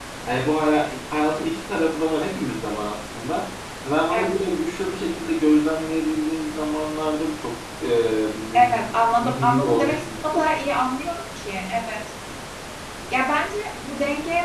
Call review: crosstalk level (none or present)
present